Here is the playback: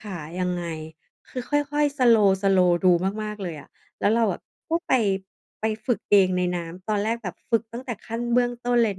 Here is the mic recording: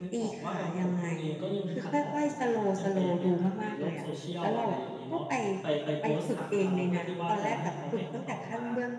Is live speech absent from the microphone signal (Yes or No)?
No